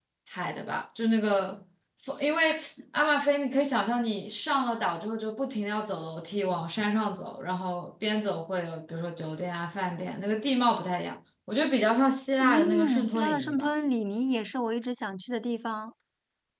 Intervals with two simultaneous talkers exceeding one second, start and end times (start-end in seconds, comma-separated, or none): 12.4-13.7